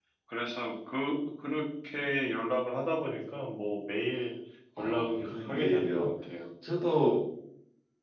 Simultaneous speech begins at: 5 s

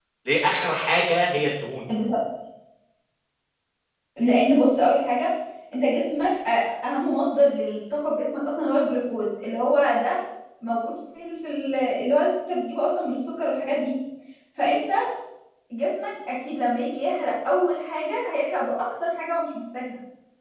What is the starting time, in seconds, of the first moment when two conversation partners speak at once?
none

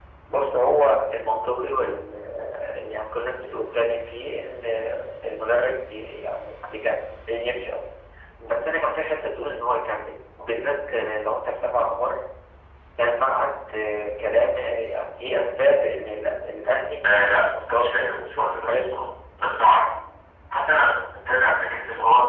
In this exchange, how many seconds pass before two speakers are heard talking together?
17 s

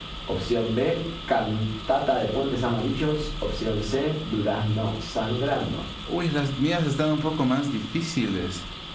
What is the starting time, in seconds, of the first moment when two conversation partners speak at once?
none

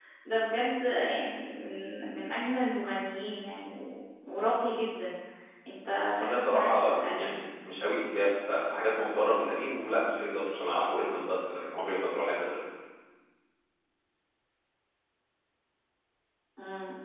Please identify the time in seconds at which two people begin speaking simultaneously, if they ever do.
6 s

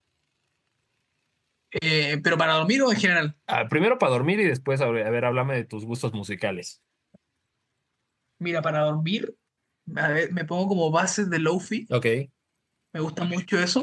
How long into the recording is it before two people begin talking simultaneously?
none

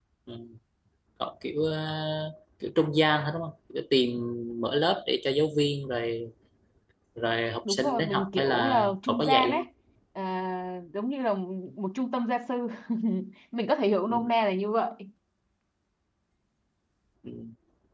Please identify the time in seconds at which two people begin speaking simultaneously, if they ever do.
8 s

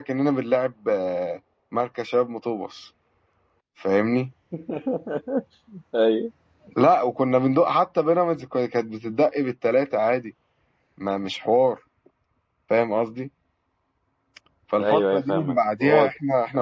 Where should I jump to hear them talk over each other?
15 s

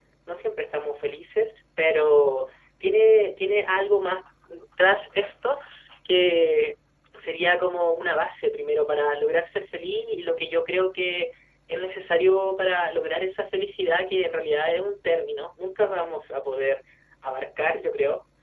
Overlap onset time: none

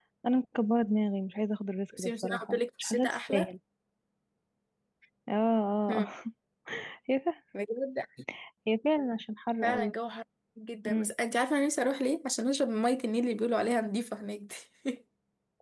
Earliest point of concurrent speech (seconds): 2 s

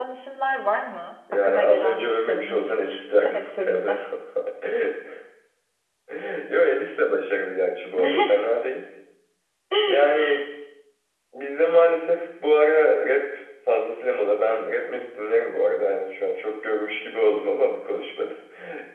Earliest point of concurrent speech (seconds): 1 s

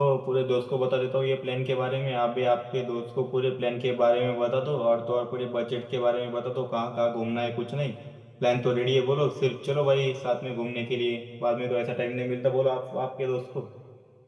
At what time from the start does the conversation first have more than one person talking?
none

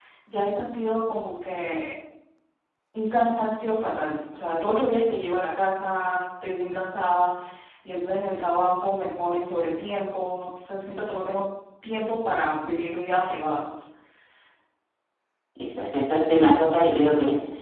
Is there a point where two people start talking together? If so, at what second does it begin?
none

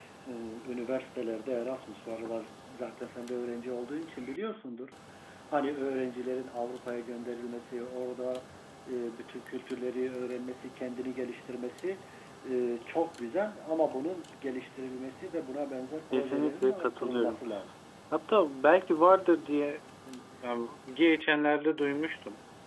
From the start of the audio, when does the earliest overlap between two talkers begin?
16 s

